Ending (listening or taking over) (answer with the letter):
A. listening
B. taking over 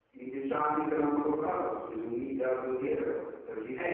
B